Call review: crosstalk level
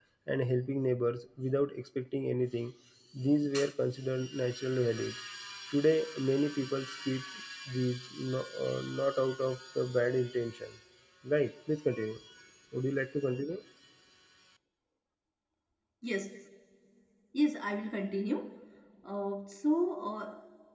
none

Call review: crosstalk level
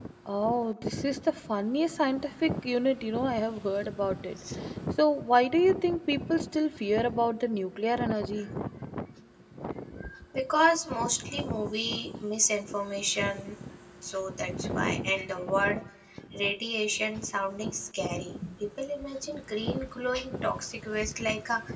none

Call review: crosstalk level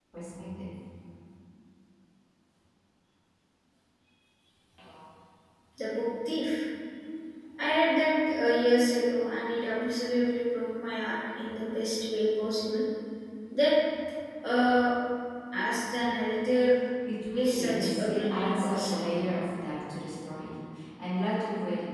present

